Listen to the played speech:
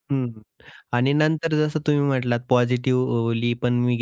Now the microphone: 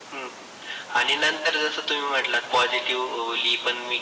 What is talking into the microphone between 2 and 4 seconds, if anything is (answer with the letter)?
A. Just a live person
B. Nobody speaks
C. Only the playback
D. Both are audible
C